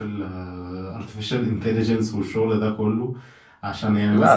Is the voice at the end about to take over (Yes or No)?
No